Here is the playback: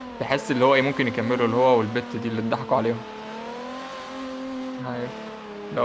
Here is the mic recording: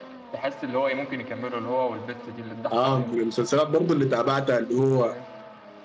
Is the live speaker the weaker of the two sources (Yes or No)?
No